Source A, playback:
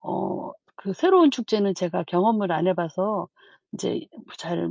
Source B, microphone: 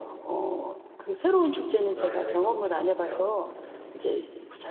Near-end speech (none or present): present